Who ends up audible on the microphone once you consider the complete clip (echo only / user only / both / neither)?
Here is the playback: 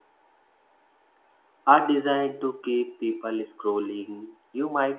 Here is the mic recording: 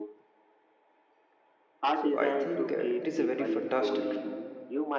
both